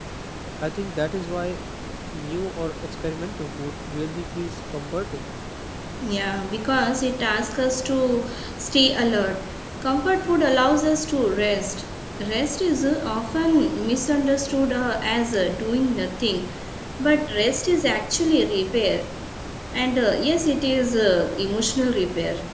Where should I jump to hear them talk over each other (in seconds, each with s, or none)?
none